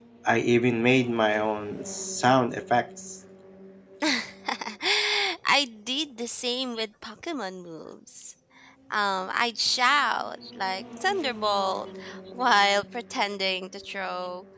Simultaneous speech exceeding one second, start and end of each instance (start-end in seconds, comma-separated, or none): none